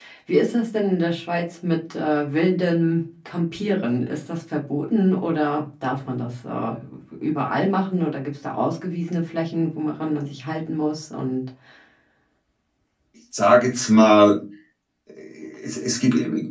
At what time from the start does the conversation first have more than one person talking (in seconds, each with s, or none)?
none